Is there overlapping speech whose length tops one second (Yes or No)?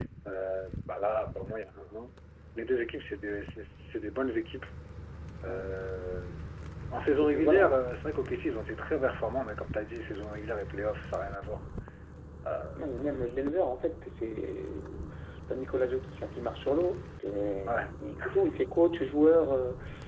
No